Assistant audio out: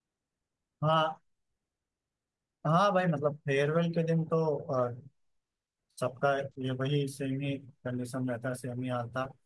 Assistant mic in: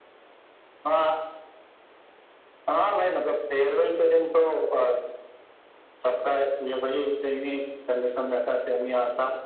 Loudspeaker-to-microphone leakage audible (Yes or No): Yes